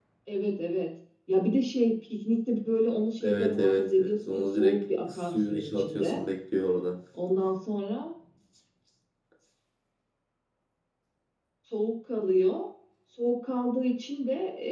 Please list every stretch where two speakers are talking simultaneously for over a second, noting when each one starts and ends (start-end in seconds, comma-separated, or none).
3.2-6.2